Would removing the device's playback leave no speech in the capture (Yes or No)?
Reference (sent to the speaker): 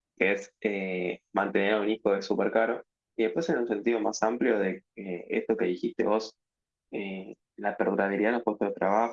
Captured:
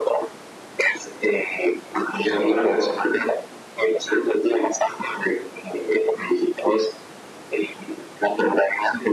No